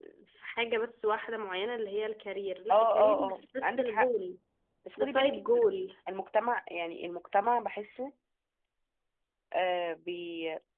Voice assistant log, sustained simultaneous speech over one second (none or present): present